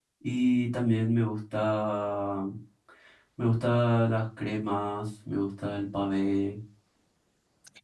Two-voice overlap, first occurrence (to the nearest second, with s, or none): none